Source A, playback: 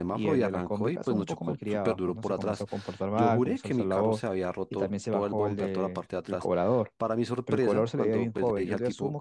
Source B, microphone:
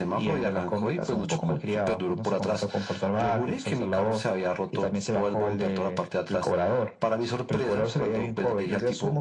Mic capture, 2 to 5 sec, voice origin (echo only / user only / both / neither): echo only